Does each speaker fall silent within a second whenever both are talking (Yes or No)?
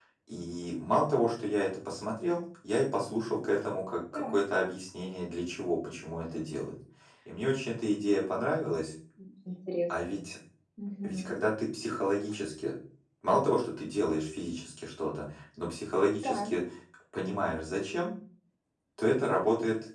Yes